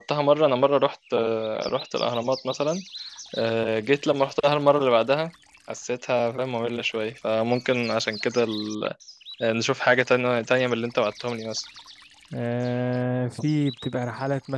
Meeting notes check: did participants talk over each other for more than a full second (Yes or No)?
No